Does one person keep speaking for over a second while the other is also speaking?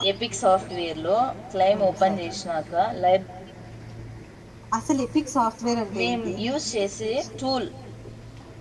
No

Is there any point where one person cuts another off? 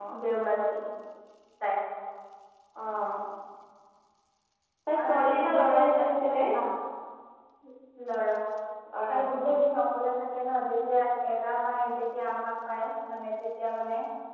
Yes, from 5.0 s

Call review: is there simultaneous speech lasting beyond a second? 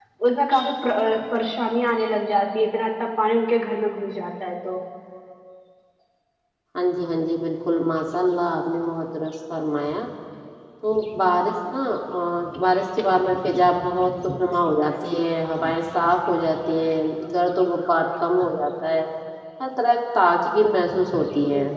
No

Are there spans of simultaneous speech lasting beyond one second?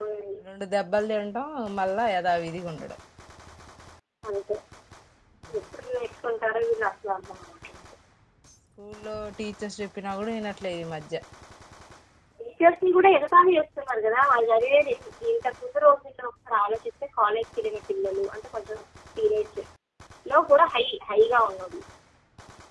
No

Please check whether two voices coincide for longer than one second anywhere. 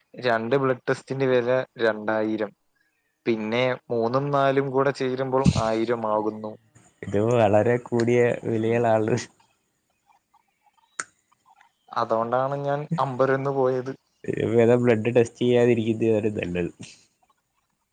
No

